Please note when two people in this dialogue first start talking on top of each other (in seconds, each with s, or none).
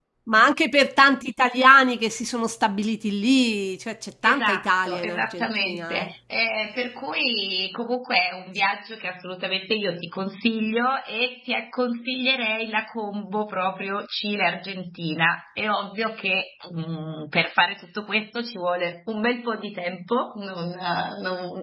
4.2 s